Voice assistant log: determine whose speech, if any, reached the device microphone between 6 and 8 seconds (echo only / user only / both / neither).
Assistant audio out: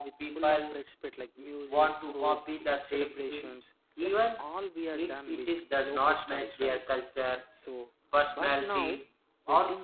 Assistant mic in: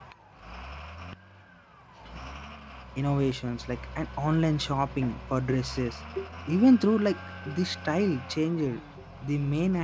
user only